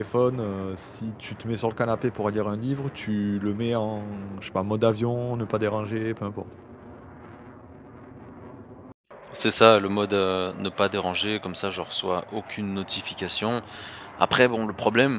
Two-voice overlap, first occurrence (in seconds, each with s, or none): none